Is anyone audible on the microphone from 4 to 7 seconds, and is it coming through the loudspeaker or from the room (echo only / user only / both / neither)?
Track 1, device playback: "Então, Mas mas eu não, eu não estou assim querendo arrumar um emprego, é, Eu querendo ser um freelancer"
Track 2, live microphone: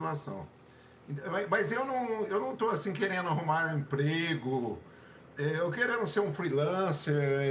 echo only